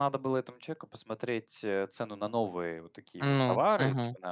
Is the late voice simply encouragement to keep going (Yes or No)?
Yes